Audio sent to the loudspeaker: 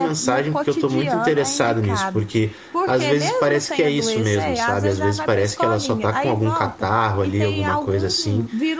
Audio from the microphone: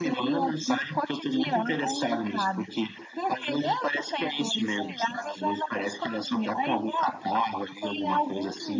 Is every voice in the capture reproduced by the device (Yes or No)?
Yes